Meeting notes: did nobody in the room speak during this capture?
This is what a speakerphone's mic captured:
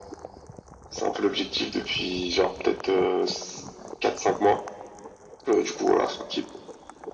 Yes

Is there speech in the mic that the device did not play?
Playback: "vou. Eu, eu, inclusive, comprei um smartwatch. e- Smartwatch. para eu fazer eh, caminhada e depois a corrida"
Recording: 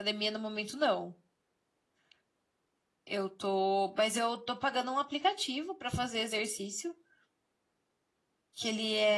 Yes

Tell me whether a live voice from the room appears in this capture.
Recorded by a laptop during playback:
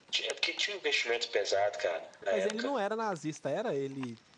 Yes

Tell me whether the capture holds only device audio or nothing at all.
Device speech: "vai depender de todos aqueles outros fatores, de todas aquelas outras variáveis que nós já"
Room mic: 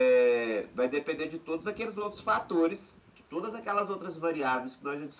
Yes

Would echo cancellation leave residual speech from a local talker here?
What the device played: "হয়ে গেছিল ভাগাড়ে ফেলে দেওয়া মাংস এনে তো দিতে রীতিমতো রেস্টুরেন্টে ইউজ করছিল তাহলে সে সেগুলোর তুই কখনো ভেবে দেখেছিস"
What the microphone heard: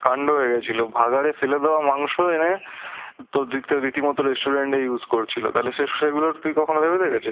No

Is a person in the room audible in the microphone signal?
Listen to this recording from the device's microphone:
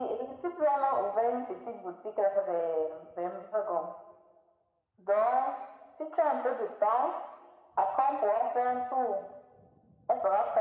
No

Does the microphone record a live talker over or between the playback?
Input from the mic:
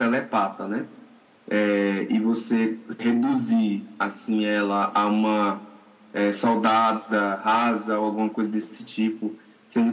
No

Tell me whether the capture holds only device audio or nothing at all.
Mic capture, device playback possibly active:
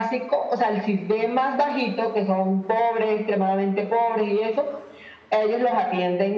Yes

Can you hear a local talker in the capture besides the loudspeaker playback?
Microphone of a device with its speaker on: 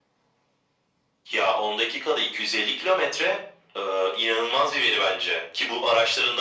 No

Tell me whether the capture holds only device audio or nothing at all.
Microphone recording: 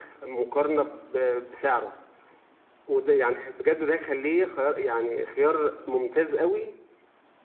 Yes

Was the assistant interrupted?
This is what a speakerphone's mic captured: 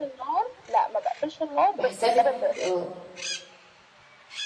Yes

